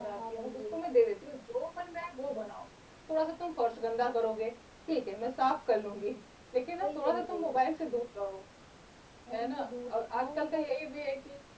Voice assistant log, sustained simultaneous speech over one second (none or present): present